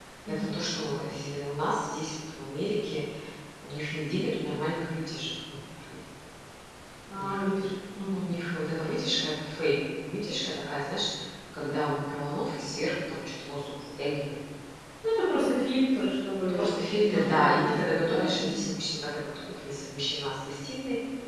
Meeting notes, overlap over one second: present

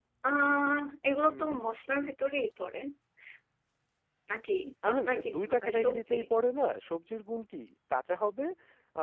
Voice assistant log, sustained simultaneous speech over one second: present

